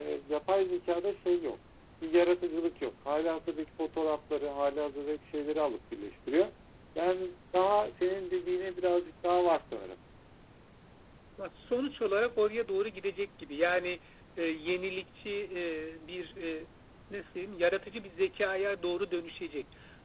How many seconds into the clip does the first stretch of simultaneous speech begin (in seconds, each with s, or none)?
none